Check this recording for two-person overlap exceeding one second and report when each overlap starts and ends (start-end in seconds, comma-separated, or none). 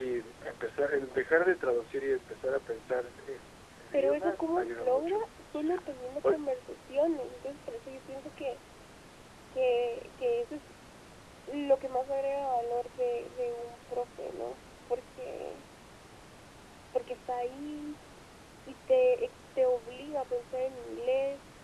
3.9-5.2